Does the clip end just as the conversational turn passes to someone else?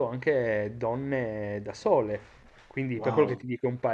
No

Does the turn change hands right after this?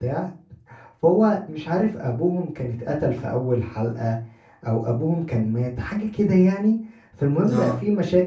No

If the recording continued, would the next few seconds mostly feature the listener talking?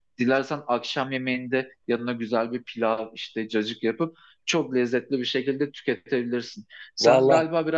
No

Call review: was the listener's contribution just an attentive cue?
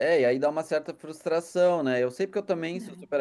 Yes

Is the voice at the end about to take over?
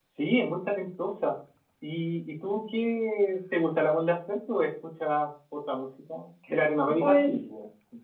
Yes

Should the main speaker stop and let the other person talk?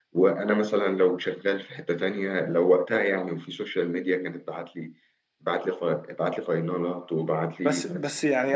Yes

